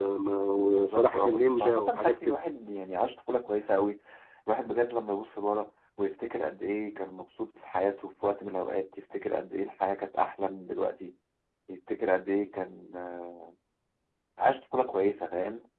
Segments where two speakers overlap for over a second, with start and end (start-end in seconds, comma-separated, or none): 0.7-2.4